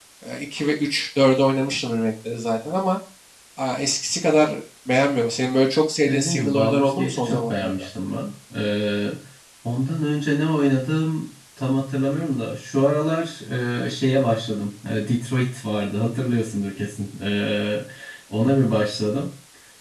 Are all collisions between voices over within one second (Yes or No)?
No